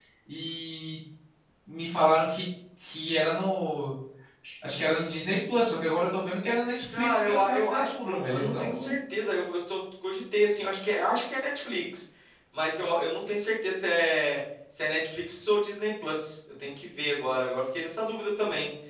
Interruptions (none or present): present